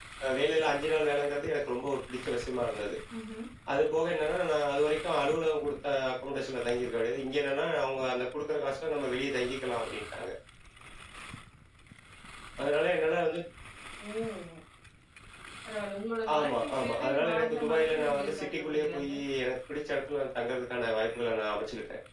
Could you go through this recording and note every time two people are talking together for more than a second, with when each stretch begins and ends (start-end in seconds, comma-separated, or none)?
16.4-19.1